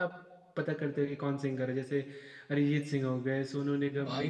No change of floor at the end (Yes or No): No